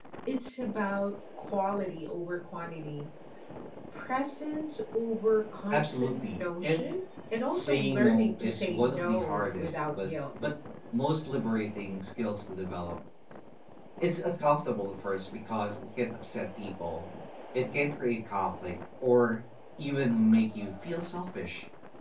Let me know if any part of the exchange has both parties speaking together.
Yes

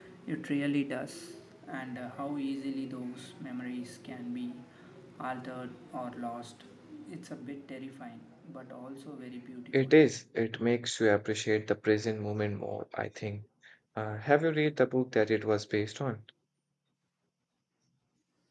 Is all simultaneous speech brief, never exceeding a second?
Yes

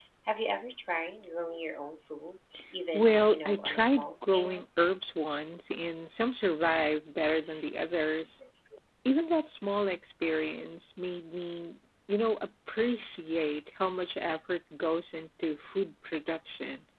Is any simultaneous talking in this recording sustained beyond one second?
Yes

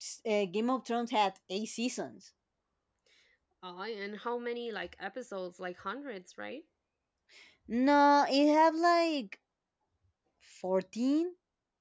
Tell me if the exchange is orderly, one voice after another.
Yes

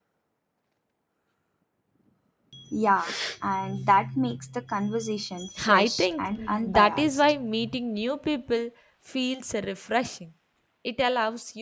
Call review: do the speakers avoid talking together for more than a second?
No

